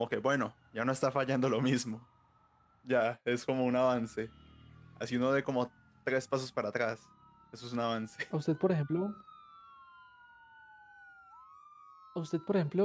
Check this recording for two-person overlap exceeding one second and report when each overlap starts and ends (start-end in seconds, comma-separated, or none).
none